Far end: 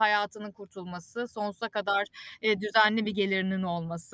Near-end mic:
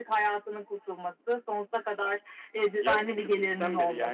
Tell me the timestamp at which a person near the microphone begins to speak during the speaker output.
2.8 s

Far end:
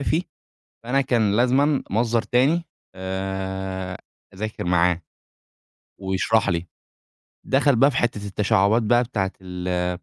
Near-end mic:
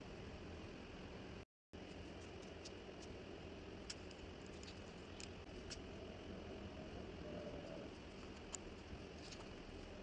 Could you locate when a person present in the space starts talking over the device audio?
none

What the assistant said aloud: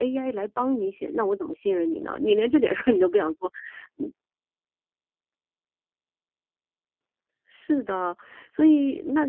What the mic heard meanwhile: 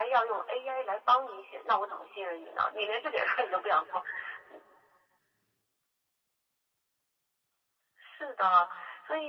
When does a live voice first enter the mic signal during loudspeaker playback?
none

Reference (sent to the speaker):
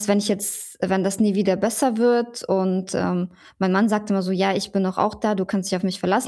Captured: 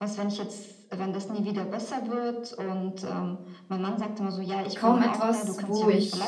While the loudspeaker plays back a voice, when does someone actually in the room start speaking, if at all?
4.7 s

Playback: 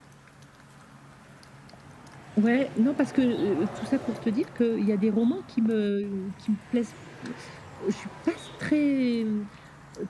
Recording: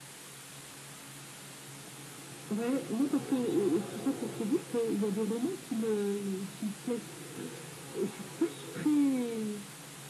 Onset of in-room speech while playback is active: none

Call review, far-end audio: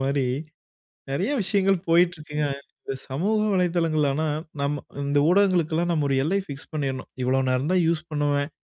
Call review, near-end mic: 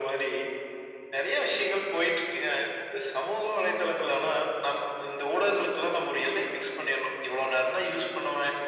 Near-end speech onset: none

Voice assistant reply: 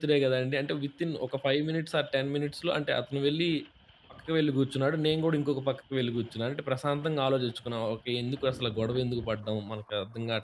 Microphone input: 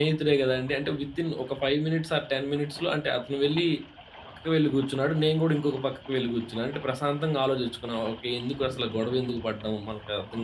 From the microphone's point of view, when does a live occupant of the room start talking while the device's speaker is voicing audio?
none

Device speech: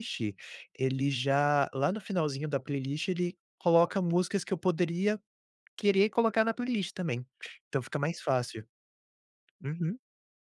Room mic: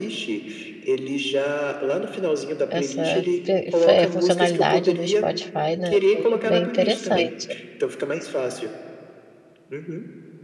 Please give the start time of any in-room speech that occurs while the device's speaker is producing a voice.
2.7 s

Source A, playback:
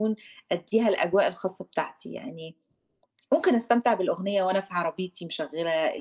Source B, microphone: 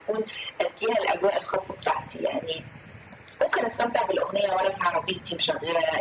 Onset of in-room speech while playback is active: none

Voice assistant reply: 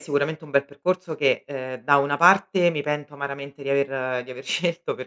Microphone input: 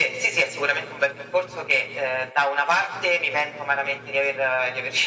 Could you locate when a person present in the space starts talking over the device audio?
none

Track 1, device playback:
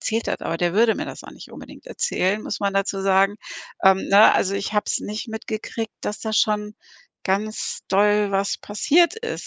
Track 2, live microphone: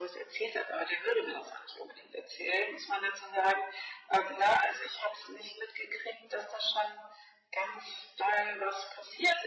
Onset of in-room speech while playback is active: none

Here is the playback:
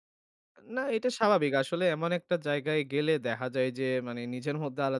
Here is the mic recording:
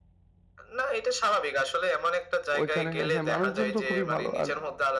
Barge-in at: 2.6 s

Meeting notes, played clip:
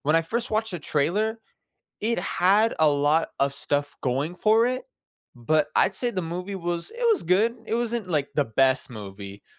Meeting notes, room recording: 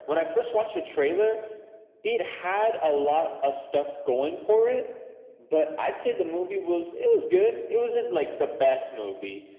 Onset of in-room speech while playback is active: none

